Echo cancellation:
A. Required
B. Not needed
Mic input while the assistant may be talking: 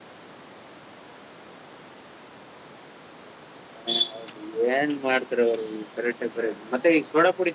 B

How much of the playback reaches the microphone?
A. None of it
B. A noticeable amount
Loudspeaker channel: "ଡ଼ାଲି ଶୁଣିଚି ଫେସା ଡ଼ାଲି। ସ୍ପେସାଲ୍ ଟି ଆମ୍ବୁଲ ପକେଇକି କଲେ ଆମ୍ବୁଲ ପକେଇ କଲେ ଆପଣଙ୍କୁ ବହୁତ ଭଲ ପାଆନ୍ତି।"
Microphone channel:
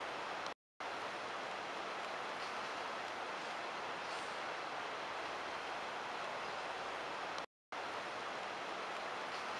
A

